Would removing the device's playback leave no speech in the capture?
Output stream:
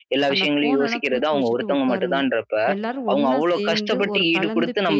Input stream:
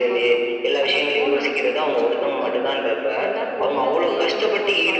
Yes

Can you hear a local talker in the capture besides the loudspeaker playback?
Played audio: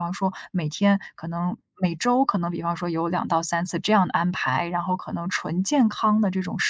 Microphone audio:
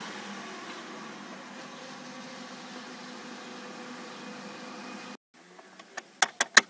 No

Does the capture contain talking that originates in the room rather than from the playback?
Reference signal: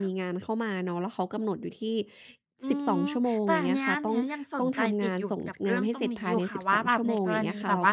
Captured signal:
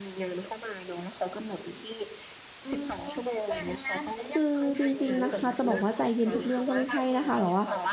Yes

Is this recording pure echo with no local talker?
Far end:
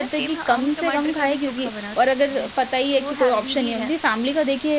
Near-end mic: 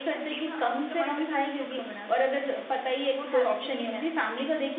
Yes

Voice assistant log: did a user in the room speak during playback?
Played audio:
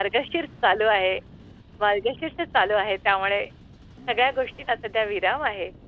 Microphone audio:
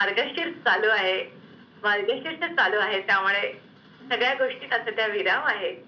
No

